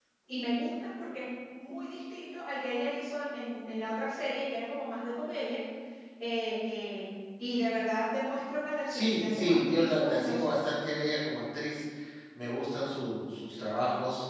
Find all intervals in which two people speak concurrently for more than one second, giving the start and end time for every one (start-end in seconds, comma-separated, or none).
8.9-10.5